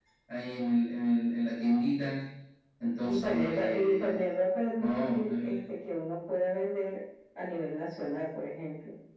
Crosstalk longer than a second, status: present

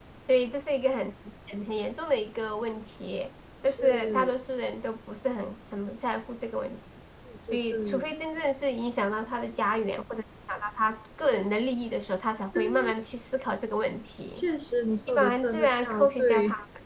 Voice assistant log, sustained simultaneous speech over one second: present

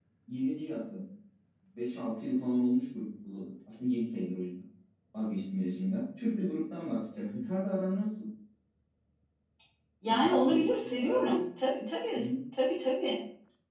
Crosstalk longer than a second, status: present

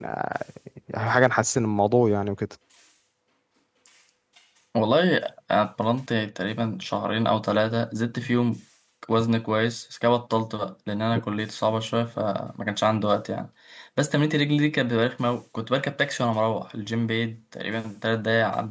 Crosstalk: none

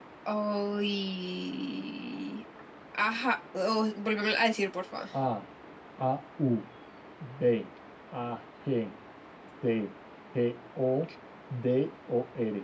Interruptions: none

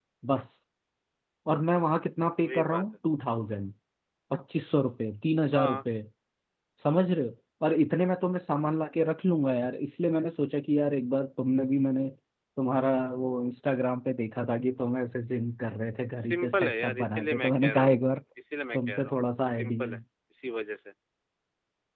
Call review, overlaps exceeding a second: present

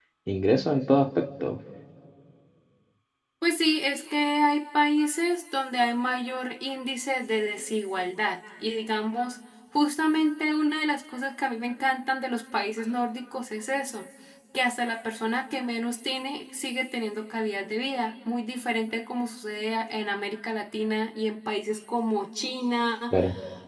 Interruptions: none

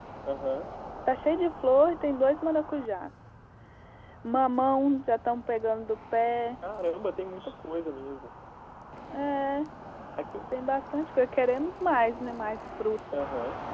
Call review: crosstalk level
none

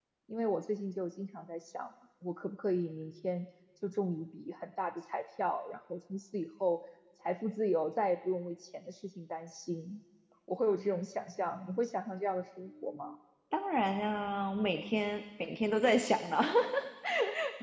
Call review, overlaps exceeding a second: none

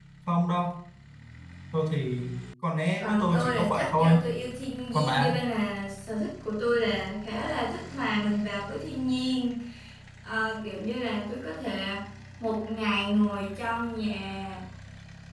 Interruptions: present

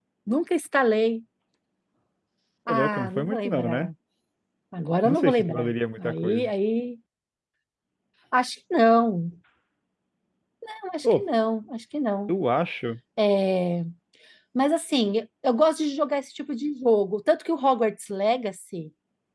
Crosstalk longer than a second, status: present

